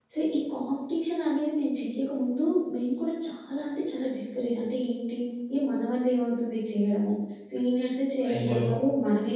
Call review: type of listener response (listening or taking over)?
listening